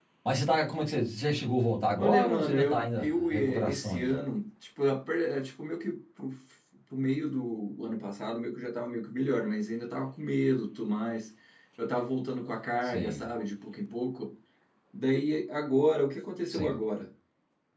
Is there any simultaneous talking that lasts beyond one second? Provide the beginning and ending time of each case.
2.0-4.2

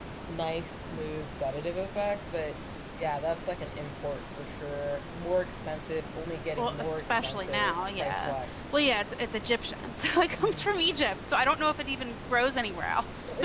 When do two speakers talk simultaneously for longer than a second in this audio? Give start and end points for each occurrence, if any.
6.6-8.3

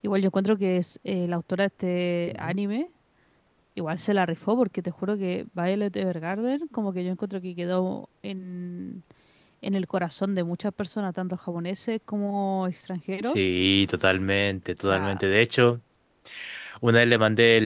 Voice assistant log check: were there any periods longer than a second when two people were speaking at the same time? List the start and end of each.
none

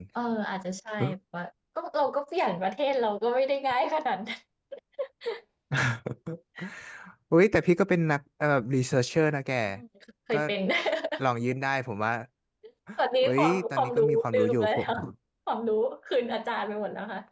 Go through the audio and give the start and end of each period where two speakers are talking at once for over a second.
13.2-14.8

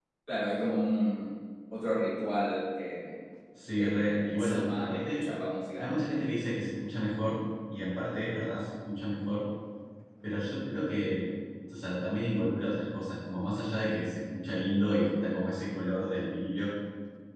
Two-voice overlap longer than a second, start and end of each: 3.8-5.2

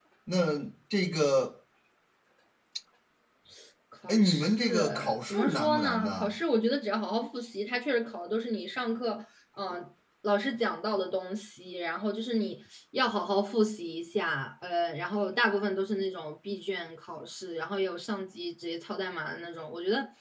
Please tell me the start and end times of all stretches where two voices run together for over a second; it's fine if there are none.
4.1-6.3

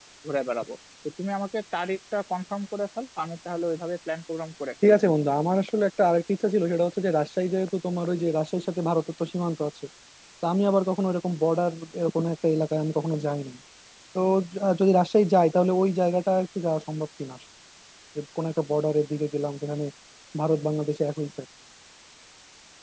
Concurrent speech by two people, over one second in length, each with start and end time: none

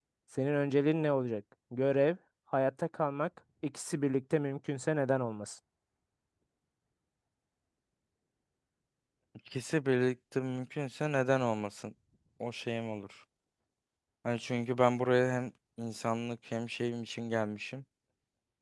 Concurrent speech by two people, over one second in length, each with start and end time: none

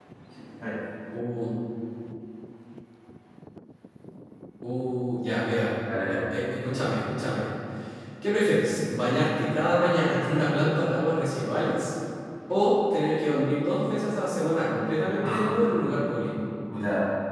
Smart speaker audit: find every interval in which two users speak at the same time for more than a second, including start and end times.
none

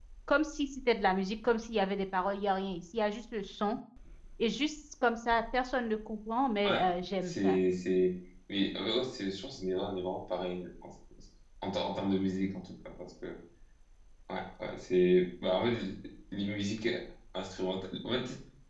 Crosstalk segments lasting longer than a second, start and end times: none

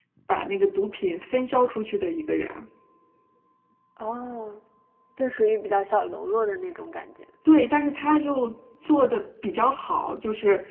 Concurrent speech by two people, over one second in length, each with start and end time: none

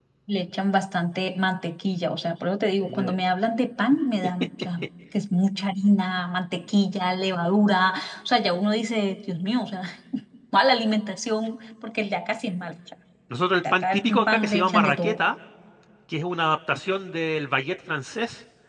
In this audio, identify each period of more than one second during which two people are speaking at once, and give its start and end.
13.7-15.2

